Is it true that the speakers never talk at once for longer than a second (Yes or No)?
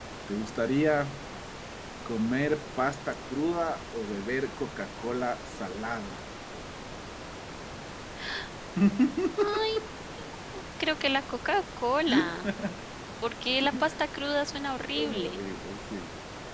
Yes